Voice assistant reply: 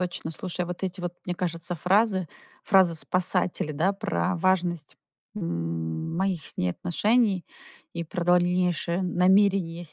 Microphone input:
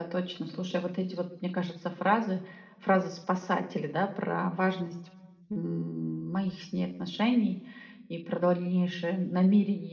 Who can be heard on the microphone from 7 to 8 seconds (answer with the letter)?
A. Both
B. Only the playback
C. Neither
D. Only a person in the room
B